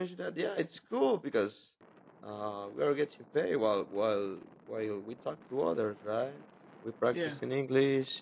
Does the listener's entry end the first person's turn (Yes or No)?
No